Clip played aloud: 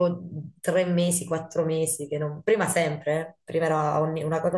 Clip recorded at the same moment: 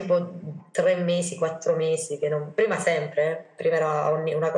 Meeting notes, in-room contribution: none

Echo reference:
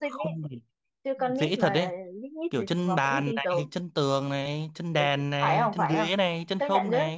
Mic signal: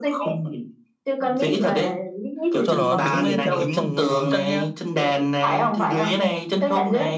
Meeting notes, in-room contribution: present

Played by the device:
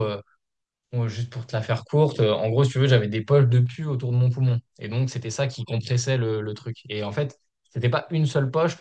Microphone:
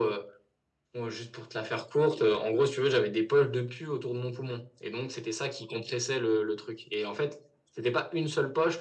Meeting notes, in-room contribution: none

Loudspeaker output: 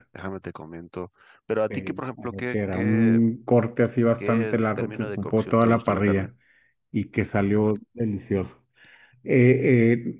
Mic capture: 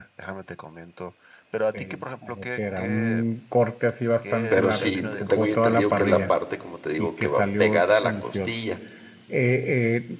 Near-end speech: present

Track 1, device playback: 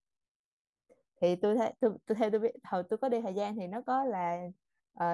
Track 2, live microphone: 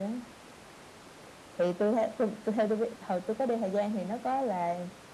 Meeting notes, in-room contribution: none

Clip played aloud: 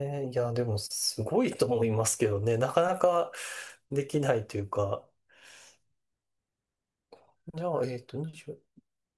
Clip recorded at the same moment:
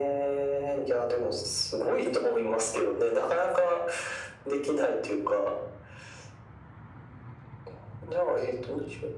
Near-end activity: none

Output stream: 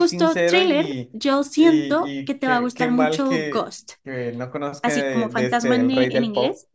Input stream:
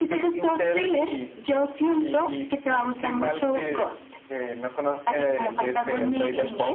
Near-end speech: none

